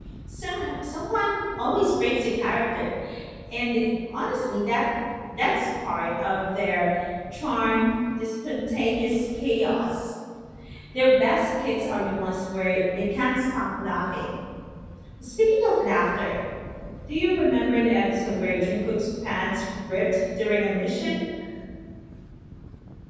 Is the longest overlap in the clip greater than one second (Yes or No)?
No